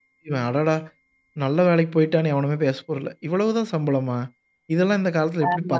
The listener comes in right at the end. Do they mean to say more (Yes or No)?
No